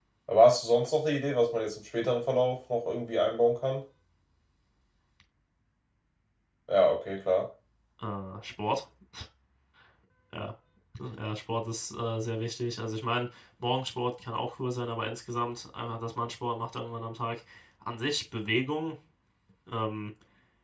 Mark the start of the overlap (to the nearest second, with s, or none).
none